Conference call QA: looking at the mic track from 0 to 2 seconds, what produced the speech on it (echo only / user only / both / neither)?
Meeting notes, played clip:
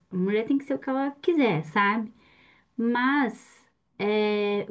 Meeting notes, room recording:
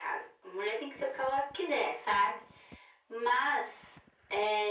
echo only